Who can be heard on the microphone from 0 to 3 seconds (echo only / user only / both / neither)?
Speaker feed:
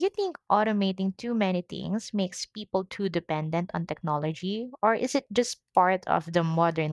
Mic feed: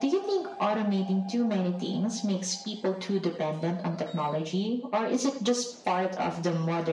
echo only